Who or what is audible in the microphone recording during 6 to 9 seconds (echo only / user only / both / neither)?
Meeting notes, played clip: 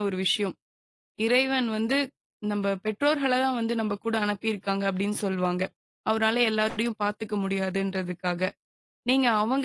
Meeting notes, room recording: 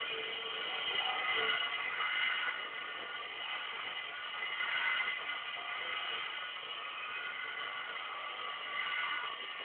neither